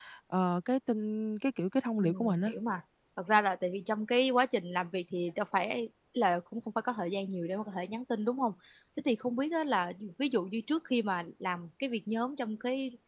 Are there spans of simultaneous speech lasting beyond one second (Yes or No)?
No